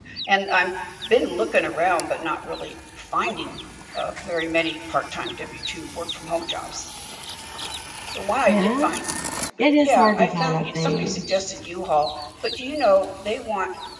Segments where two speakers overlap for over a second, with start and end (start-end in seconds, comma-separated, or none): 9.8-11.1